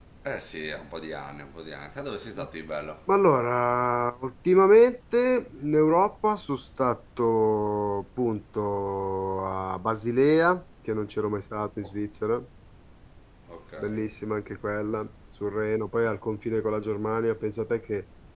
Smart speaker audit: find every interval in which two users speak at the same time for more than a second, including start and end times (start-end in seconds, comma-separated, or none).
none